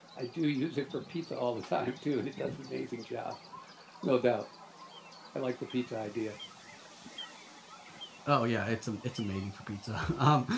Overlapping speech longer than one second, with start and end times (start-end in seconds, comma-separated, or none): none